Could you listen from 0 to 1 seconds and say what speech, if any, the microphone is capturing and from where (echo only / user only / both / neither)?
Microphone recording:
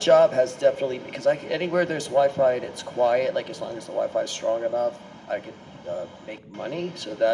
echo only